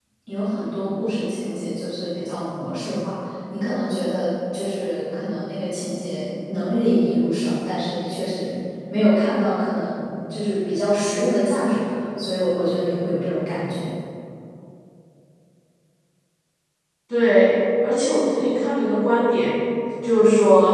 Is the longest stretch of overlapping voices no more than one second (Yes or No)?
Yes